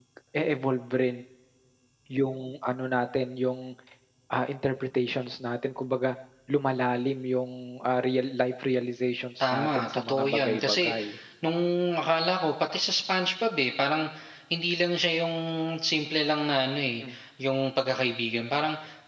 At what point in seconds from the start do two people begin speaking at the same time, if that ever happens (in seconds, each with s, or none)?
9.4 s